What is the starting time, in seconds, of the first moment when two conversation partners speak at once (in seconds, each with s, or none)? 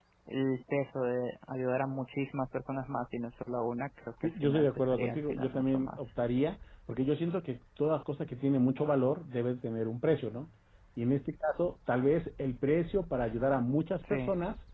4.2 s